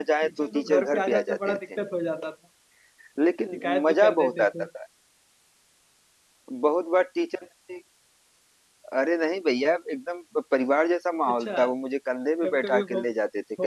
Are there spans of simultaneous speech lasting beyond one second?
Yes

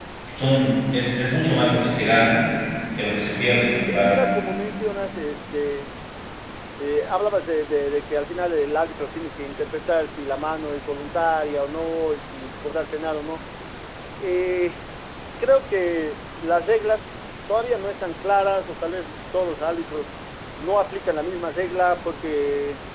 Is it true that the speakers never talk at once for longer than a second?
Yes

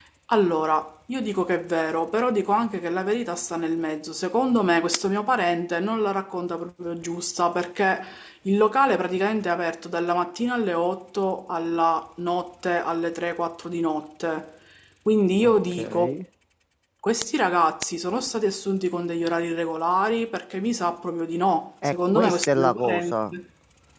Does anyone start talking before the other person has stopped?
Yes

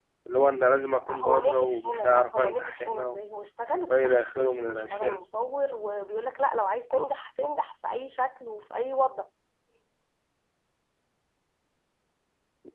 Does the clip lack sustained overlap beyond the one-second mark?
No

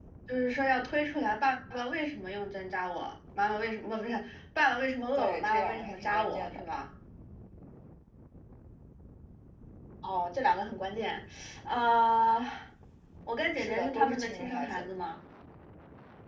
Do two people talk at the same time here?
Yes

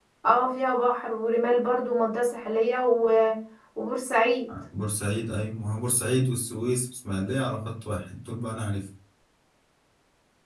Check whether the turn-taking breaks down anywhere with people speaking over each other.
No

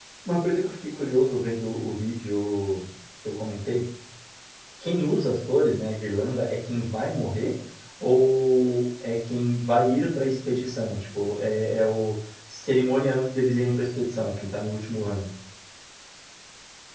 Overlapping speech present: No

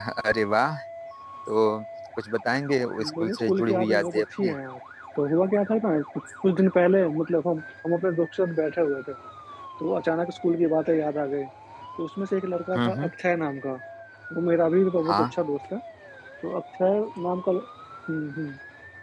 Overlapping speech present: Yes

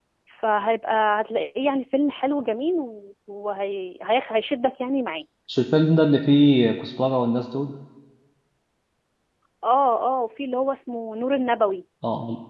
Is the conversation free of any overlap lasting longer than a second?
Yes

